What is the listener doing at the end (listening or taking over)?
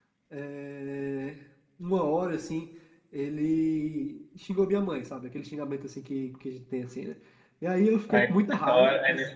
taking over